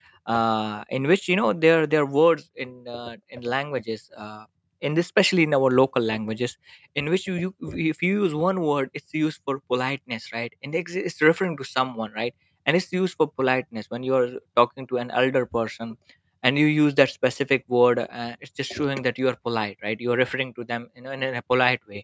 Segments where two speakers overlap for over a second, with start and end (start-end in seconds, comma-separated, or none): none